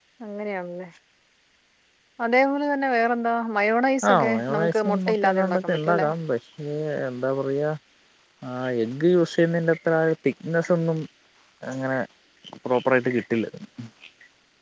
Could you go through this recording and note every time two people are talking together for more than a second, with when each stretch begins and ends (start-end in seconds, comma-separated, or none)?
4.1-6.1